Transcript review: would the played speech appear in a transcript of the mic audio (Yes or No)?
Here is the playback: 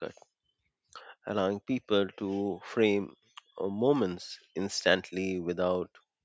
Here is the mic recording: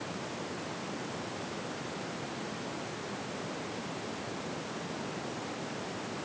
No